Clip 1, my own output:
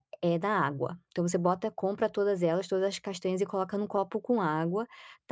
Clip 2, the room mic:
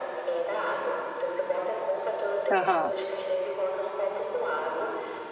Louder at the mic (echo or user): user